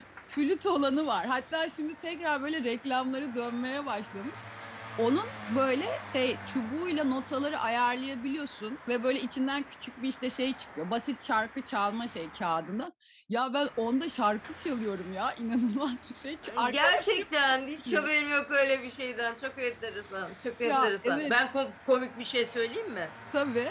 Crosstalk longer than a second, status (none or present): present